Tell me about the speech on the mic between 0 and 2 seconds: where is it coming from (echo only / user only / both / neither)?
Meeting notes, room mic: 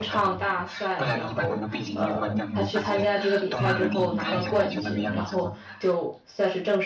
both